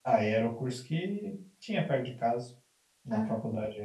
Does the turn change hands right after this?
No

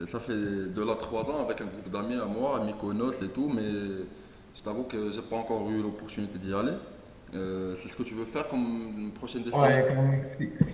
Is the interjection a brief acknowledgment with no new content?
No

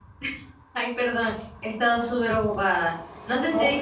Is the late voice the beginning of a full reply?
No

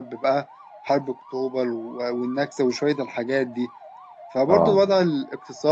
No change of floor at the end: Yes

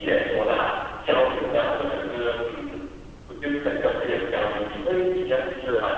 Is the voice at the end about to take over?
No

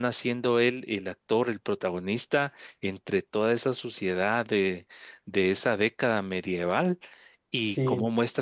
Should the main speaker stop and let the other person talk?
No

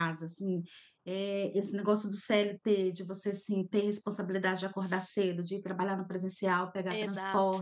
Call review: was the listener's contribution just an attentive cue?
Yes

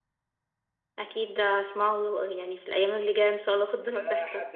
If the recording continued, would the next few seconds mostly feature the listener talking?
Yes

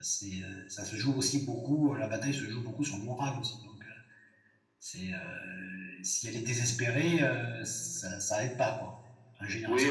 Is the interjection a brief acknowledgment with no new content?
No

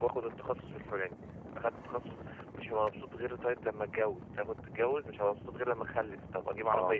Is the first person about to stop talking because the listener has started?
No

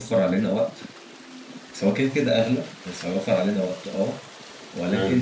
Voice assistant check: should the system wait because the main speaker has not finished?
Yes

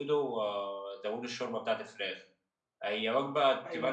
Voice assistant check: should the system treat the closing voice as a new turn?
No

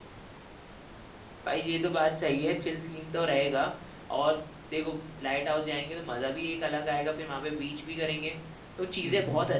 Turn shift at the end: No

